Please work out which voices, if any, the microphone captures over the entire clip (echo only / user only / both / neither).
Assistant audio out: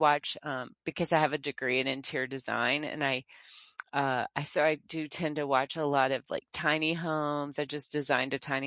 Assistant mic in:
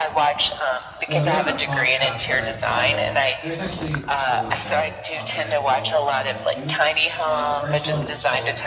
both